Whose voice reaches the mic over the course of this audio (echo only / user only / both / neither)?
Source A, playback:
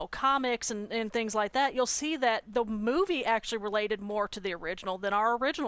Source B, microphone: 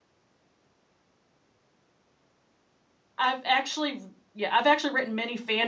user only